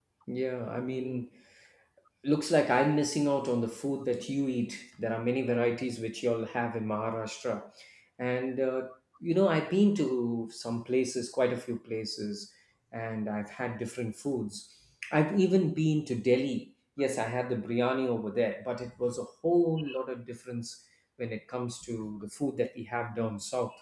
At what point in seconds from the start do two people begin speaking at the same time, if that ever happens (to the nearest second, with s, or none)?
none